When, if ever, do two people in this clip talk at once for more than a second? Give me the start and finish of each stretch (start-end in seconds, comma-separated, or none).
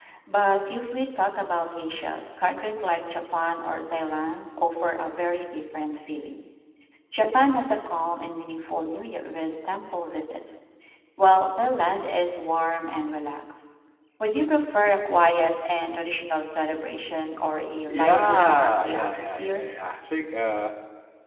17.9-19.6